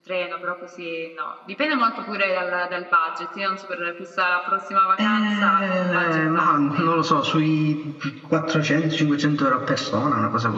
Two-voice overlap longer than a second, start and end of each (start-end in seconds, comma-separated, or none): 5.0-7.0